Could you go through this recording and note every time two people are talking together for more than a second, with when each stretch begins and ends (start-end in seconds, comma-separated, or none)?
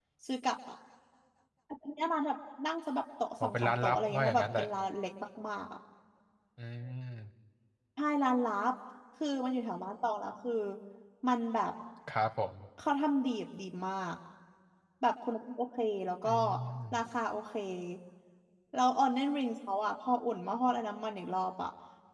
3.4-4.7